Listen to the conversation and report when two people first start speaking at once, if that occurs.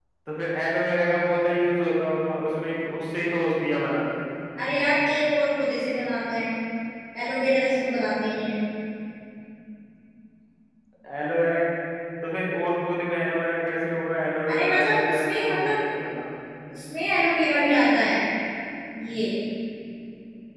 14.5 s

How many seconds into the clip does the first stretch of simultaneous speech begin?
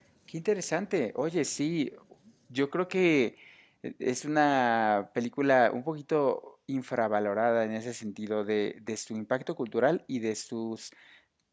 none

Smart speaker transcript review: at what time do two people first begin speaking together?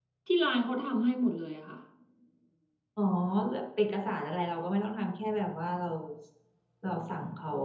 none

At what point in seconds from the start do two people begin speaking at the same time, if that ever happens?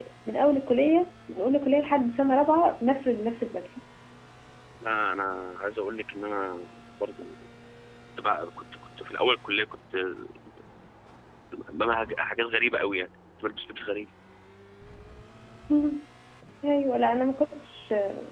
none

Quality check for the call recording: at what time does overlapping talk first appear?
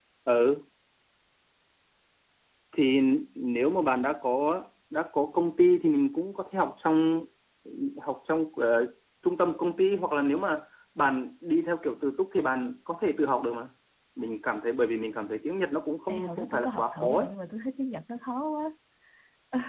16.1 s

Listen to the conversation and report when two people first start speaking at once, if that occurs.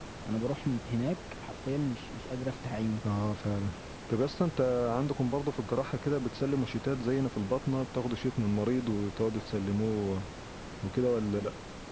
none

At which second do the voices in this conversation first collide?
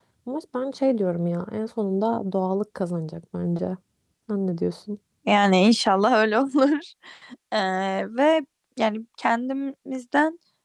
none

